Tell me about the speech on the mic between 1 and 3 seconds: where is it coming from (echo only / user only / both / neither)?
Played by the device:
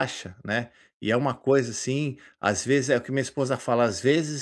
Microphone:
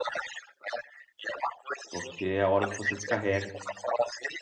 both